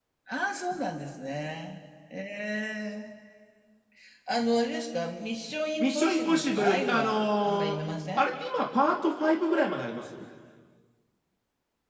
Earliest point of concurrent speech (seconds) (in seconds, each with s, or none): 5.8 s